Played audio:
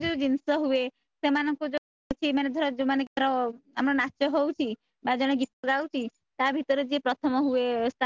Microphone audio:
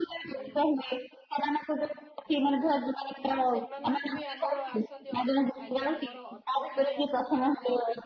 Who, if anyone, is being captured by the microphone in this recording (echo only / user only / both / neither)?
both